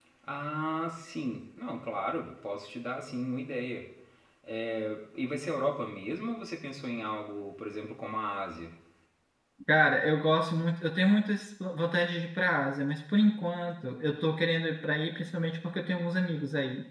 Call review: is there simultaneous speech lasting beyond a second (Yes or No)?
No